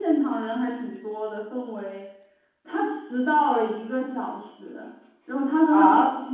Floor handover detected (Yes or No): Yes